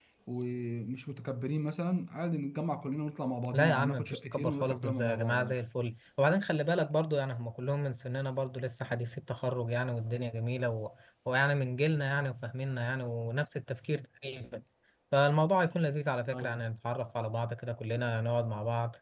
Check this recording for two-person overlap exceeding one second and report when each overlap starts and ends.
3.5-5.5

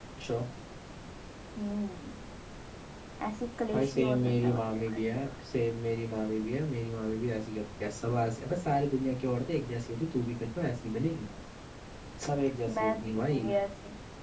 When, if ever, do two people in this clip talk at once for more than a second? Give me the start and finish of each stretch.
3.7-5.0

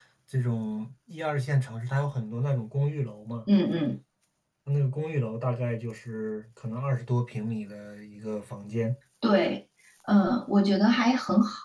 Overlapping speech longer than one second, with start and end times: none

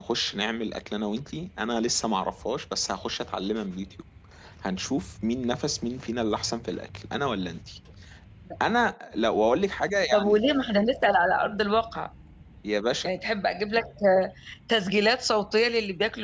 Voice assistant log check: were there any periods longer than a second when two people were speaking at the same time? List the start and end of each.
none

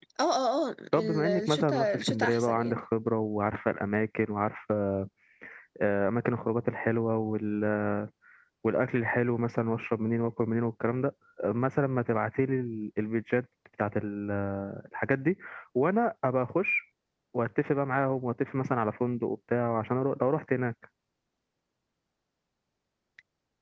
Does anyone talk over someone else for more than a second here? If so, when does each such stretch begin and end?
0.9-2.8

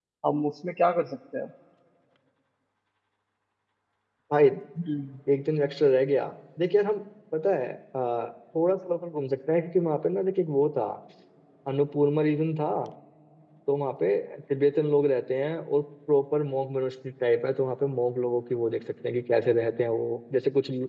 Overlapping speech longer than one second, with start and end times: none

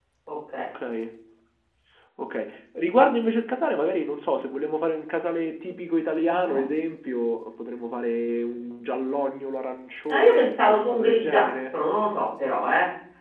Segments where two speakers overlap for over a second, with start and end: 10.1-11.7

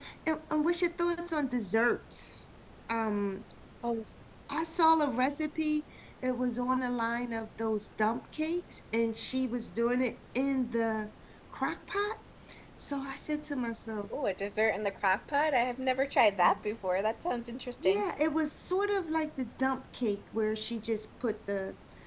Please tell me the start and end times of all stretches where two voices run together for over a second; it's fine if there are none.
none

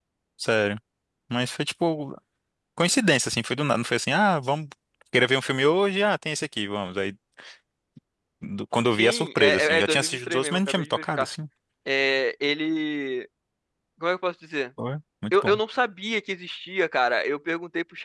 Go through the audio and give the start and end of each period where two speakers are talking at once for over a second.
8.9-11.3

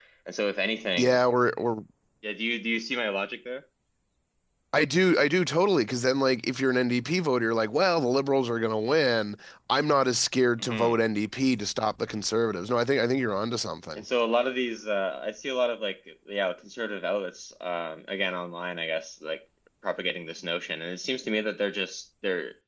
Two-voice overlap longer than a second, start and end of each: none

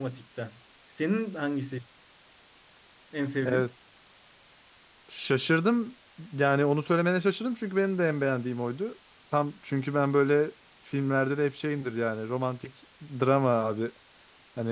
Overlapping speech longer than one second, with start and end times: none

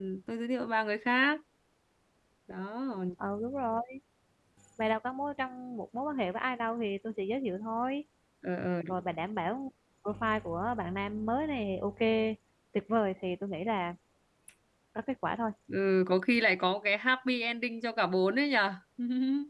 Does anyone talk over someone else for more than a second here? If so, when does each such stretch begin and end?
none

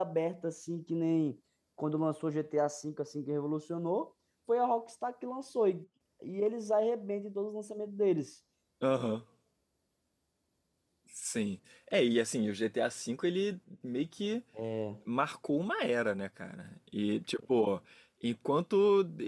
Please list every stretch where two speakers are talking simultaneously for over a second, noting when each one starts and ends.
none

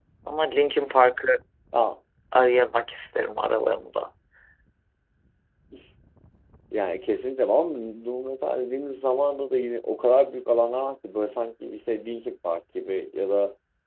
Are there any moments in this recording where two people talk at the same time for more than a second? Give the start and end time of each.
none

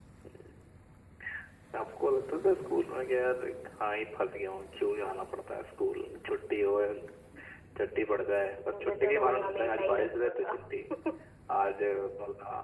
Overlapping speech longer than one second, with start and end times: 8.7-10.5

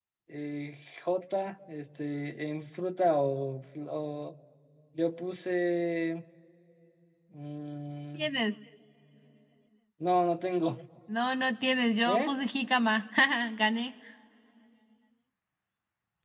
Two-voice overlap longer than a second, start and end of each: none

